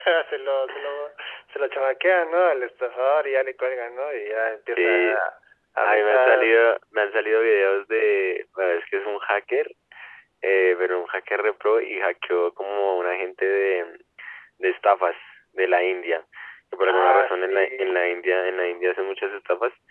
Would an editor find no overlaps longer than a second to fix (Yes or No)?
No